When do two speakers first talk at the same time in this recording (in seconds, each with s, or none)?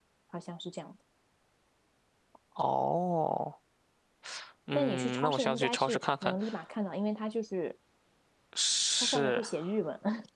4.7 s